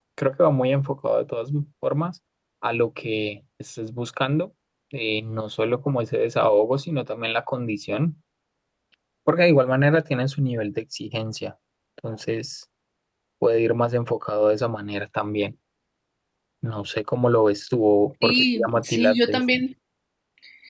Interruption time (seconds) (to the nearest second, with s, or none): 18 s